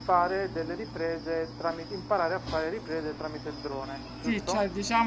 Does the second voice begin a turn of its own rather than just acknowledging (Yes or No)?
Yes